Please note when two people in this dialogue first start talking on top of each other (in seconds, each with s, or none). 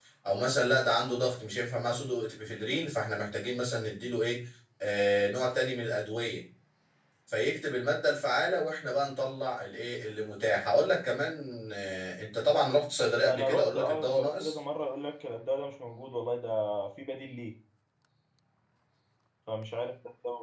13.2 s